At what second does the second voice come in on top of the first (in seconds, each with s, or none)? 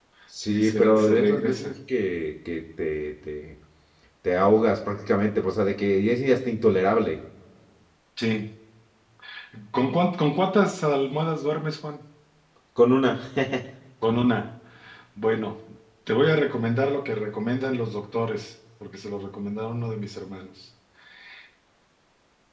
0.5 s